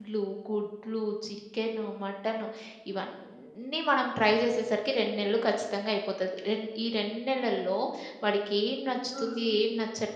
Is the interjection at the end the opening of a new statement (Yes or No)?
No